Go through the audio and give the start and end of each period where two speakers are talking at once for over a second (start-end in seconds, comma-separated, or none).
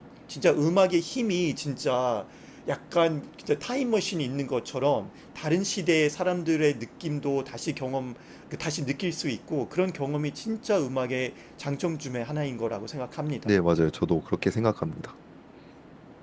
none